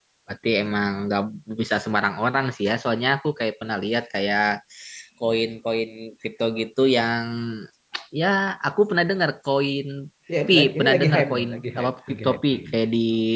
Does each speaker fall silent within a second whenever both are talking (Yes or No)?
No